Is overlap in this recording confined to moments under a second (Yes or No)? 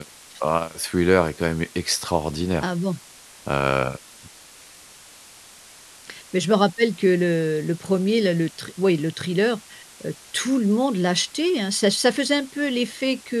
Yes